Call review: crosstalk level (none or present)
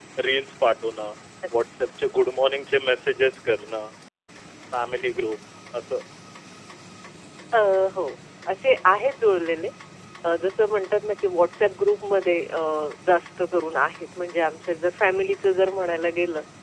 none